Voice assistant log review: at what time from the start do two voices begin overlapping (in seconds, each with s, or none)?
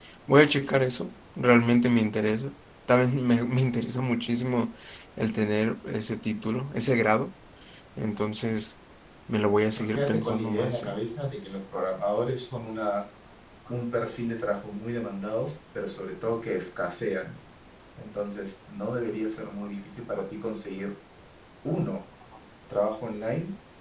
9.8 s